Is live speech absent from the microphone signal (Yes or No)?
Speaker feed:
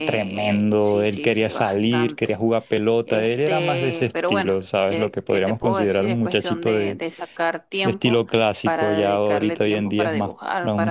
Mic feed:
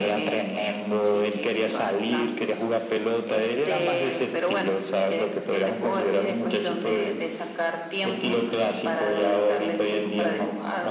Yes